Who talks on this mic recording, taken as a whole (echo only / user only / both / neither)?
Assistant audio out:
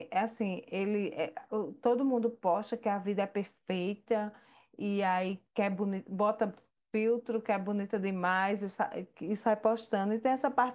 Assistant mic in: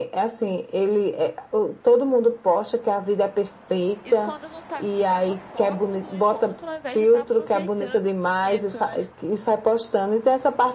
both